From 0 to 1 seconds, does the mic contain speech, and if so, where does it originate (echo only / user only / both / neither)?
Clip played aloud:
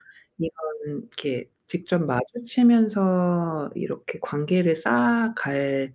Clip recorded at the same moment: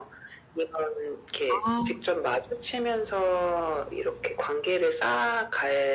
echo only